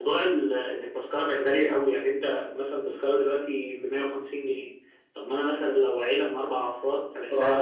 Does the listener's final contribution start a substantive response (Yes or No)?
Yes